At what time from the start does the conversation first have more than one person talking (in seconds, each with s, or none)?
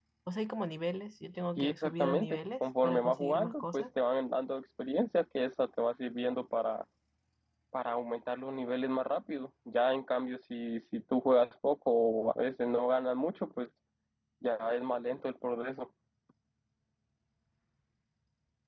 1.6 s